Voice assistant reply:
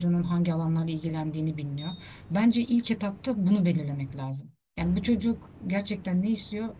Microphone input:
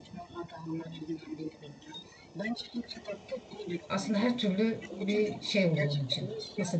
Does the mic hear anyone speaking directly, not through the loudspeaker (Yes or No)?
Yes